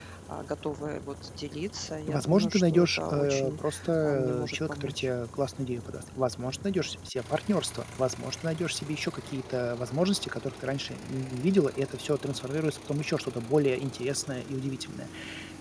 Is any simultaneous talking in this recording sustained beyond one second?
Yes, from 2.1 s

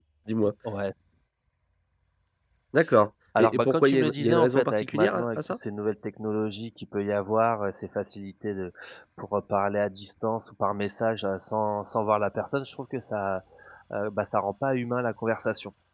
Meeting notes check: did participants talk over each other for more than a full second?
Yes, from 3.4 s

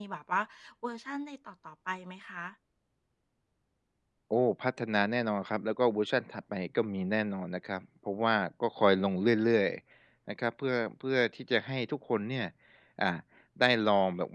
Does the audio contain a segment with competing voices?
No

